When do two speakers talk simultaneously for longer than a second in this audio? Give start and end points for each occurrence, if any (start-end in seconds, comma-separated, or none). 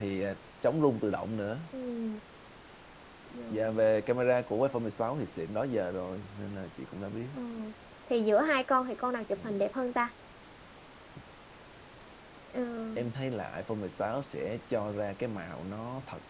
none